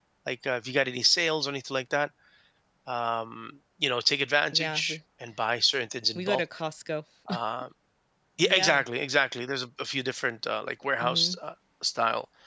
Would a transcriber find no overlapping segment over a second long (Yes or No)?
Yes